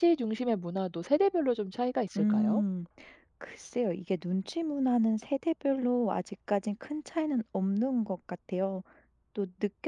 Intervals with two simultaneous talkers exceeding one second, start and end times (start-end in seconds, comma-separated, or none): none